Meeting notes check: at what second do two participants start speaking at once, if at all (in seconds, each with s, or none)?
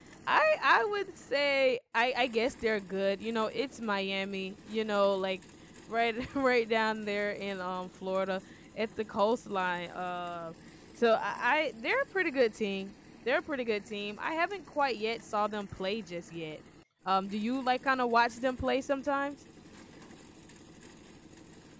none